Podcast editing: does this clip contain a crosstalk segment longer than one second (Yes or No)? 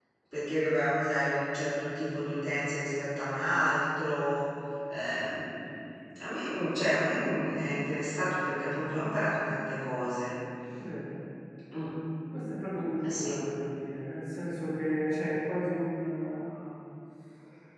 No